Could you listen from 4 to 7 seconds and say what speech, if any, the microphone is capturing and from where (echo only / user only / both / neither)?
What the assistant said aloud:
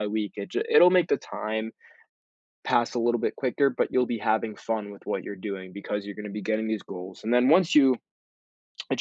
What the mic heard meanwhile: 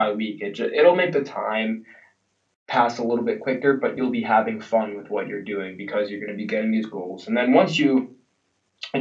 echo only